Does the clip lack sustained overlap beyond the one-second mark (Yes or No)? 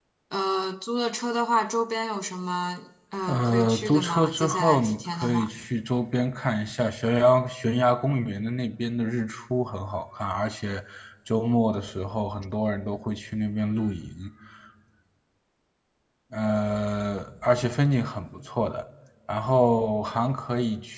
No